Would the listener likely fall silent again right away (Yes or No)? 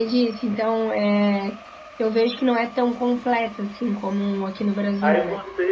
No